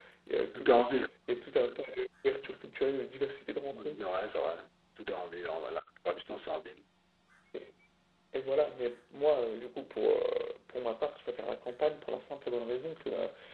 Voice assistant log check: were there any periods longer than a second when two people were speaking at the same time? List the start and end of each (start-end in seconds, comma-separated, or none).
none